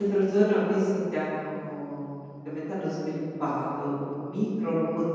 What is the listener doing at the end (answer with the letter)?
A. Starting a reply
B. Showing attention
B